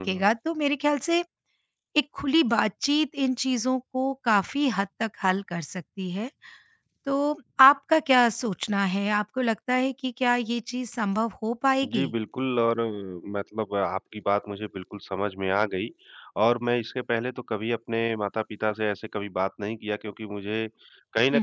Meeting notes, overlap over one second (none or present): none